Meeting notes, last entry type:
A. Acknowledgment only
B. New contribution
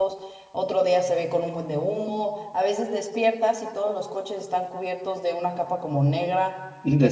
A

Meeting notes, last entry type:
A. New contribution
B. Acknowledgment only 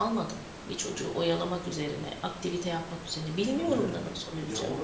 A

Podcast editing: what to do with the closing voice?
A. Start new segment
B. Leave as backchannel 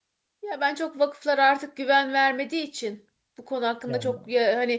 B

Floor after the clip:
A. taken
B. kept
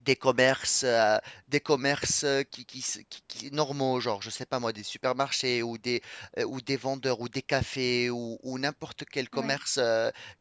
B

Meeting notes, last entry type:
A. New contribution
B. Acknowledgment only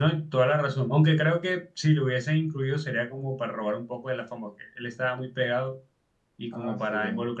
B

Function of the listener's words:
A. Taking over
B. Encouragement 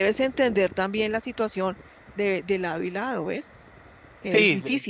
A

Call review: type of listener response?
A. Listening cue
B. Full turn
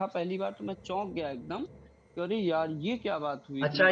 B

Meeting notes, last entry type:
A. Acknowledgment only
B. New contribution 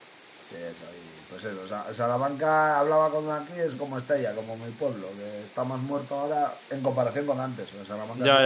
B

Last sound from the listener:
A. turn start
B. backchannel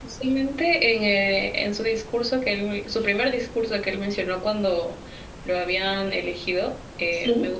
B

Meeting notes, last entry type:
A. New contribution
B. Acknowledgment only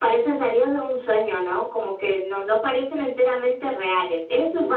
A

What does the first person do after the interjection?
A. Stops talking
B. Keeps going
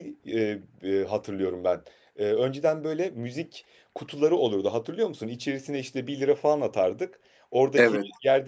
B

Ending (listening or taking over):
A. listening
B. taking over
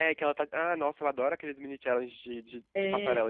B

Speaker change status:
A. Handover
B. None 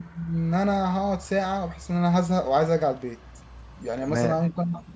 B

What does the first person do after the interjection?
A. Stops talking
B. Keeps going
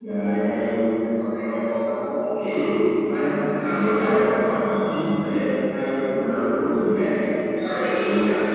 A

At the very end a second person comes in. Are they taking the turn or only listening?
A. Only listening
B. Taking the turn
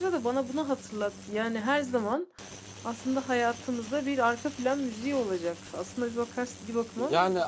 B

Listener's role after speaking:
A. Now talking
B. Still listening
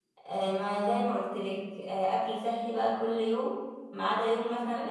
A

